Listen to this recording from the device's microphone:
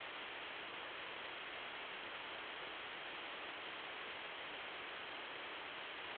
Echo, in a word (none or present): none